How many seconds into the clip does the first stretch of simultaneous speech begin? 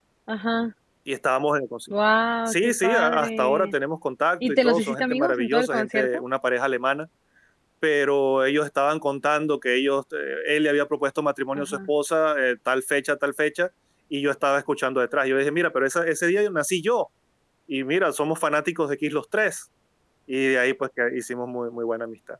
2.5 s

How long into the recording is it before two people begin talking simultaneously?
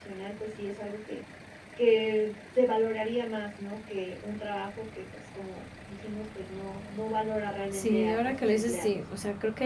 7.7 s

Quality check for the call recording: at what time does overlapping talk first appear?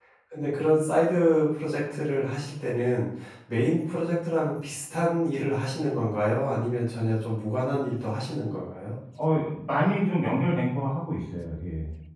none

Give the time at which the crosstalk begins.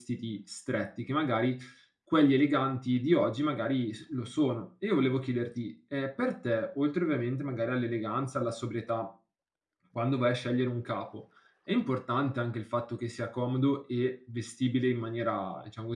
none

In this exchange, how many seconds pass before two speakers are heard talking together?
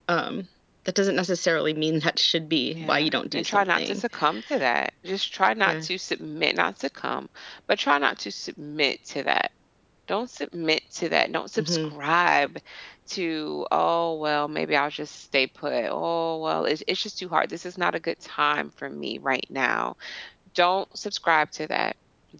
2.8 s

